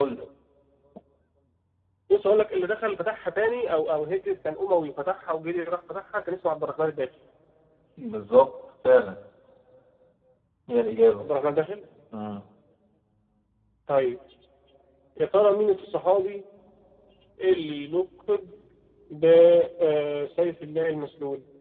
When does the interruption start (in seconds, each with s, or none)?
none